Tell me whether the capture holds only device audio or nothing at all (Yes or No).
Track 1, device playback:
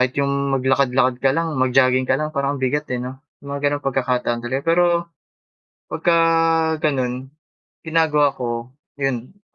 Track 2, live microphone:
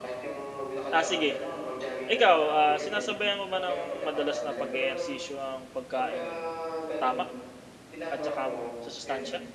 No